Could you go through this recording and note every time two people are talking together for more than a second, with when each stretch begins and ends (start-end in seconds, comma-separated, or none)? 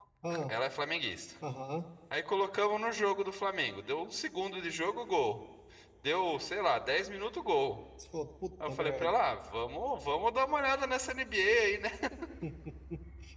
none